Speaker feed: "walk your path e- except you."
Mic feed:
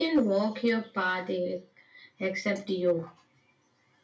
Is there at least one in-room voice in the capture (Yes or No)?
No